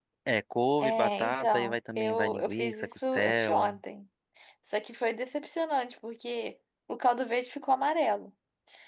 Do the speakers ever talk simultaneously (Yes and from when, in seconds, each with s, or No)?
Yes, from 0.8 s